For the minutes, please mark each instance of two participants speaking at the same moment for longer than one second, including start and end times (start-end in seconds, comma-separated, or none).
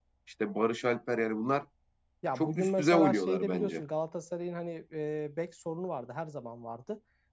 2.4-3.8